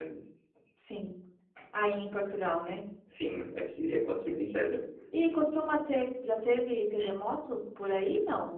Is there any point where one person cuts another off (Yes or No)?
No